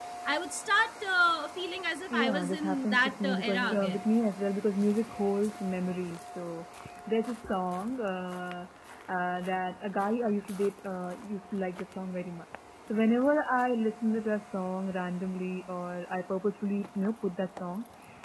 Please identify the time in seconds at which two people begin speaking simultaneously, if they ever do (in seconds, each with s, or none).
2.1 s